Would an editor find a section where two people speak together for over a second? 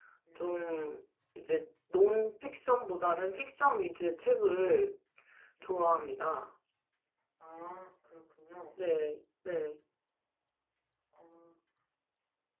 No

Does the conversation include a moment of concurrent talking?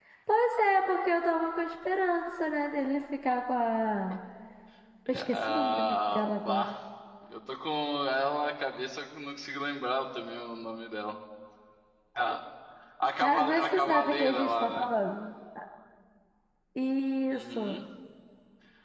Yes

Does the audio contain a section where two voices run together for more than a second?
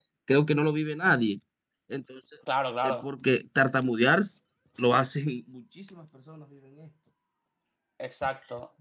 No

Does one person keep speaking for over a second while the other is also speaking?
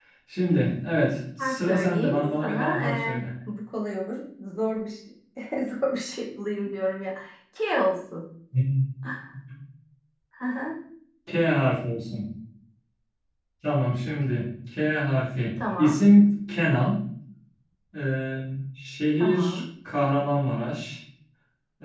Yes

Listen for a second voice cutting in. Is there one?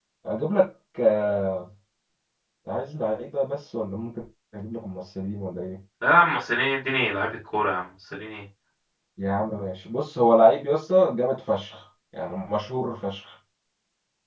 No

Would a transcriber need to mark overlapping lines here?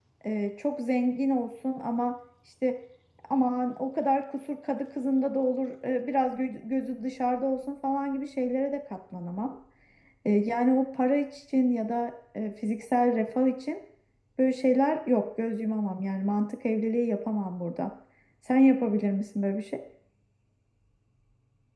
No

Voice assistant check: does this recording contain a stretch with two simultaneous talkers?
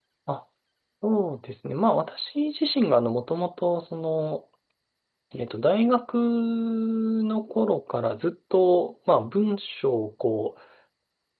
No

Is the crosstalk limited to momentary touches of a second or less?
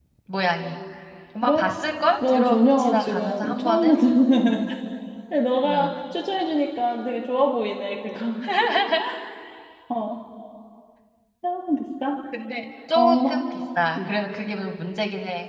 No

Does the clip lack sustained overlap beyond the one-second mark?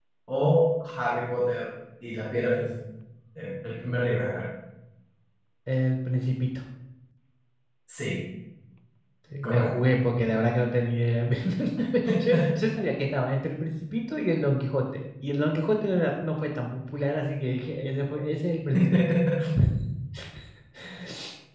Yes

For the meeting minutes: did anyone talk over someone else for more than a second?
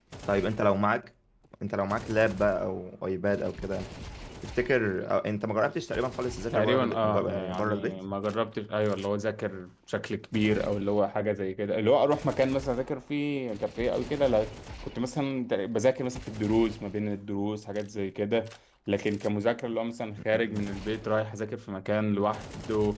Yes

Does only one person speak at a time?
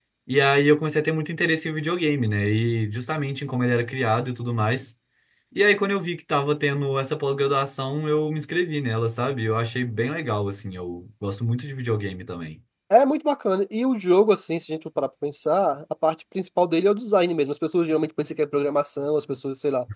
Yes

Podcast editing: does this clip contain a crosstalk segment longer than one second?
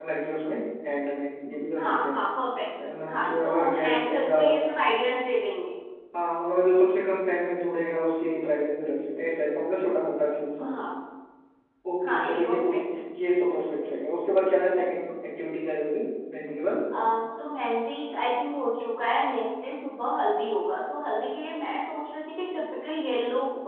Yes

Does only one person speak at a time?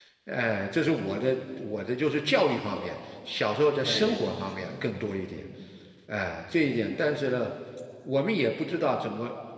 No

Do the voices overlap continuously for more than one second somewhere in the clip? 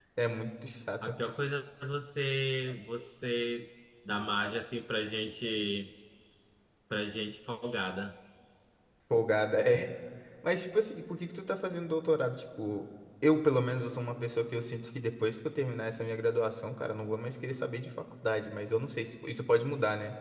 No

